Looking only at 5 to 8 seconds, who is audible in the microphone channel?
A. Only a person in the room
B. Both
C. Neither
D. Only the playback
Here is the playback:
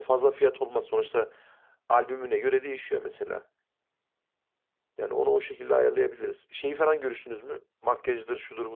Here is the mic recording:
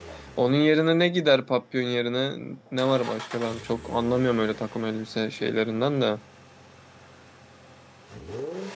A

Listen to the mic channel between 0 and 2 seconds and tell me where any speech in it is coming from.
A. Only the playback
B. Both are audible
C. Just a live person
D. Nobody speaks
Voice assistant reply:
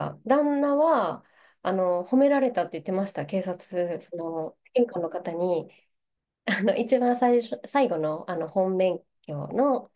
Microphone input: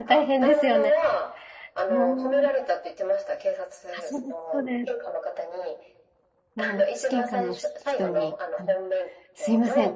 B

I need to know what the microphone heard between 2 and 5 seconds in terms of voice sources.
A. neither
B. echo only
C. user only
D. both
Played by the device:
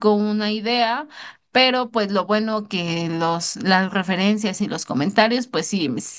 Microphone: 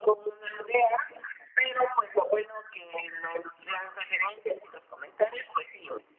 B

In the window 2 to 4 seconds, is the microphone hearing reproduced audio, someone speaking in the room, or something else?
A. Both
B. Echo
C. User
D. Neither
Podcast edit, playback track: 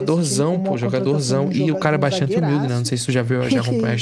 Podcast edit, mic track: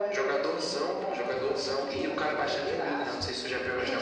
B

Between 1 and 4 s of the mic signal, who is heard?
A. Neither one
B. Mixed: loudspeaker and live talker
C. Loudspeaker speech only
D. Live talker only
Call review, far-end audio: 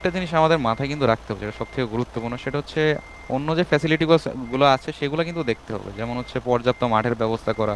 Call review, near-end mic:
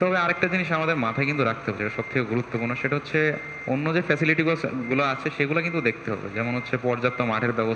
C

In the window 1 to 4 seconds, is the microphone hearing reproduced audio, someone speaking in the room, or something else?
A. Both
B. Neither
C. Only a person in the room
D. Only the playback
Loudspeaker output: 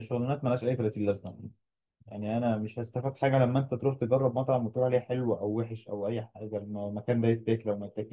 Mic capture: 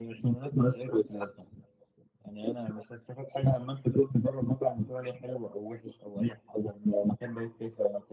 D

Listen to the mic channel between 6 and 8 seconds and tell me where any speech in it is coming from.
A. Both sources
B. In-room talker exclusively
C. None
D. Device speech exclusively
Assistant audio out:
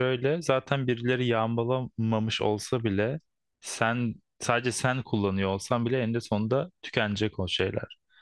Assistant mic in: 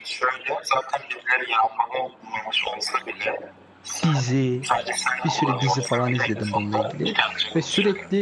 A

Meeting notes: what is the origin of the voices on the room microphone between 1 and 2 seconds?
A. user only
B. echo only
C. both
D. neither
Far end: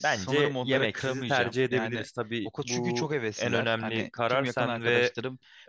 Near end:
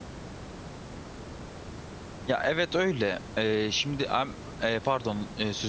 D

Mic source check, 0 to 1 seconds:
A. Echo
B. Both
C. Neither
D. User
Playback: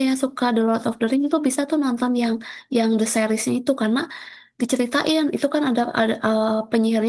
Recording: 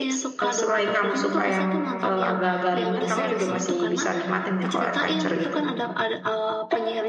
B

